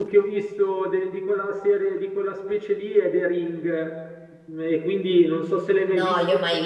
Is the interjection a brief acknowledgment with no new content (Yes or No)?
No